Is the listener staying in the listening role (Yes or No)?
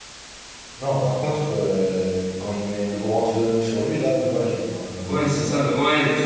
No